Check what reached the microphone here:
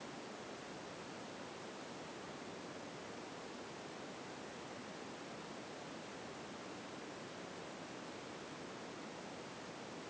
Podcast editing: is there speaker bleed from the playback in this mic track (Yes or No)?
No